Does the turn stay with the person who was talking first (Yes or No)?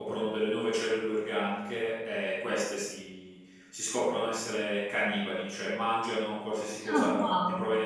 Yes